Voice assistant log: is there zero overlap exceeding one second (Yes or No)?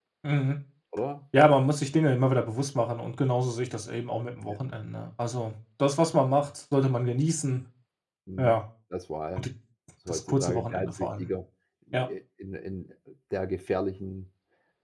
No